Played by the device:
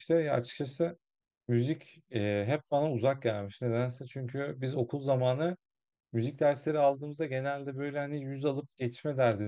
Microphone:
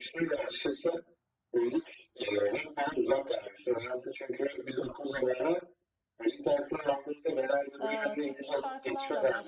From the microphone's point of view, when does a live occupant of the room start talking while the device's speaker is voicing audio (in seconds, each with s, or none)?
7.8 s